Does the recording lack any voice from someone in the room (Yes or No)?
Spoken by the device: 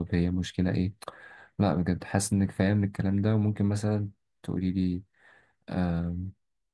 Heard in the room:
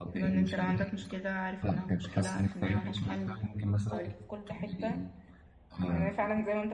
No